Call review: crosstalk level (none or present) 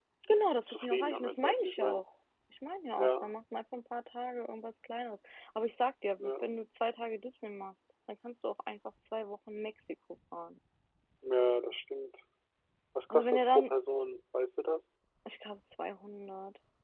present